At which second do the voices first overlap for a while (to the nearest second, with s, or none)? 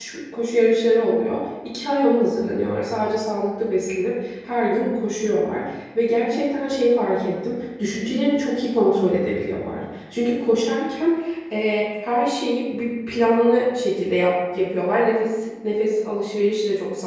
none